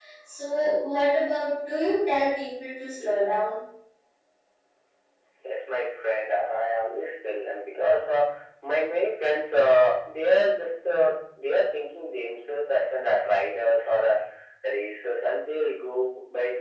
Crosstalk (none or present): none